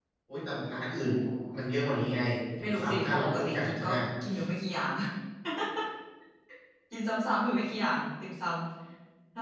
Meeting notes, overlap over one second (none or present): present